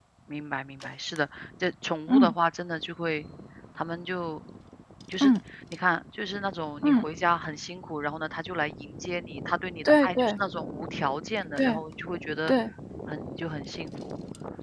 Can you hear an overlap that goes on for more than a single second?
No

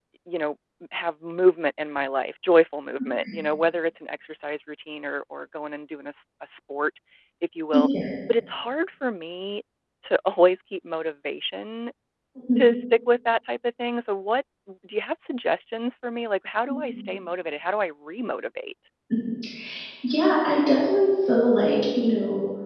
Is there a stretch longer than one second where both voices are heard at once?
No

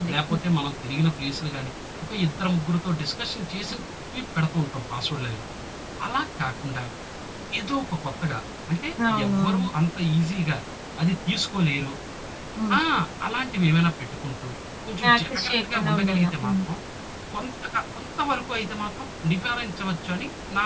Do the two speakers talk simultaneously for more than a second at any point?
Yes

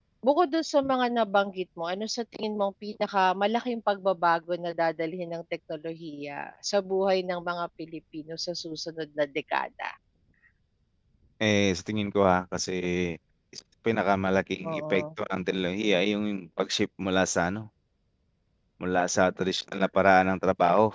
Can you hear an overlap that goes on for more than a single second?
No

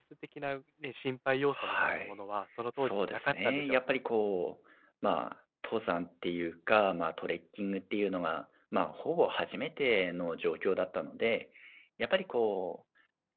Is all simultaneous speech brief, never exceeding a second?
No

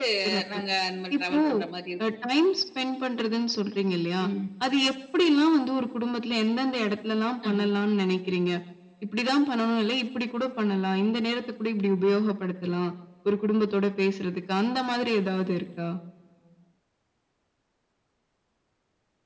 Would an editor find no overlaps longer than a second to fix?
Yes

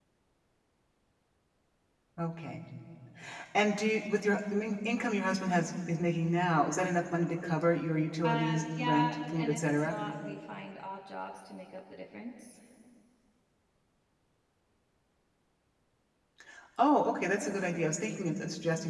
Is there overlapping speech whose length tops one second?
Yes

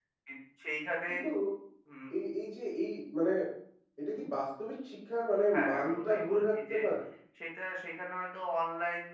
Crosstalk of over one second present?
Yes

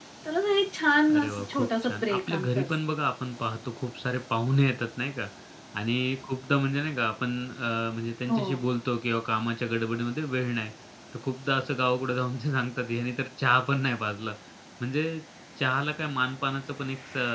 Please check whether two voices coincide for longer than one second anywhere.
Yes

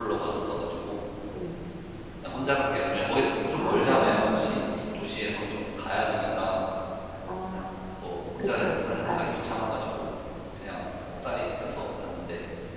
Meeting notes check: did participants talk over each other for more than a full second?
Yes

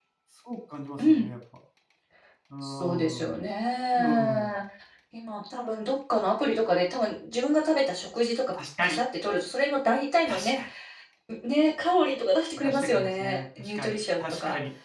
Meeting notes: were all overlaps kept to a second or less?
No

